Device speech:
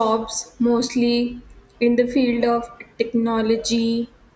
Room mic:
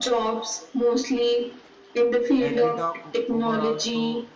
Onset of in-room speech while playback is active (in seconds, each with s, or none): 2.4 s